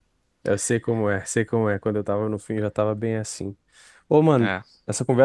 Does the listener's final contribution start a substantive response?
No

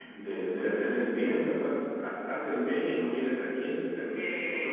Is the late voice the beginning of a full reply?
Yes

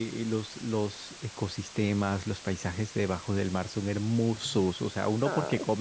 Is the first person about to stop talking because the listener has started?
No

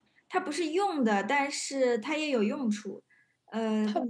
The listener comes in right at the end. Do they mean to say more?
No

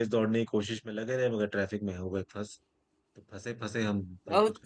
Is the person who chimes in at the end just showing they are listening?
No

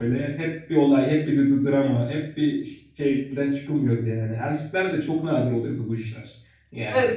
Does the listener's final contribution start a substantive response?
No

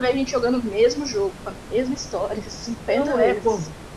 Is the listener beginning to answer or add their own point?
Yes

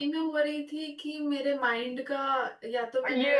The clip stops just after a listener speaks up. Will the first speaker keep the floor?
No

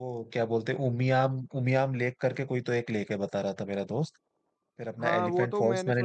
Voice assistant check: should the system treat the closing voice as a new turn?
Yes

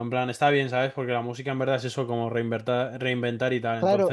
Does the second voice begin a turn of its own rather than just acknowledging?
Yes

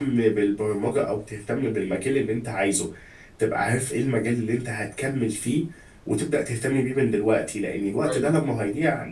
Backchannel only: Yes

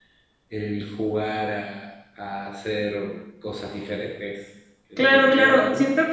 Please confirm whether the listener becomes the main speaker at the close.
Yes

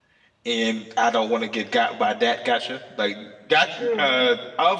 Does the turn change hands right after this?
No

